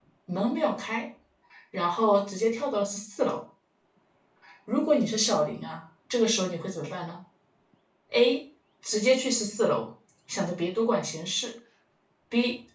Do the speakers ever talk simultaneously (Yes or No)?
No